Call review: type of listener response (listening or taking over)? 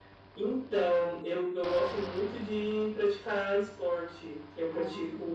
listening